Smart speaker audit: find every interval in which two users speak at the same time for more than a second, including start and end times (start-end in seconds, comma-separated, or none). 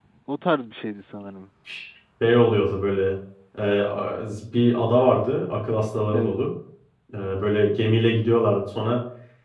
none